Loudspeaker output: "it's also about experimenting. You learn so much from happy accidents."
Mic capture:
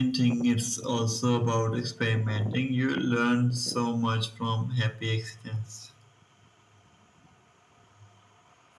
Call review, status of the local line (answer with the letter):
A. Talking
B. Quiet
B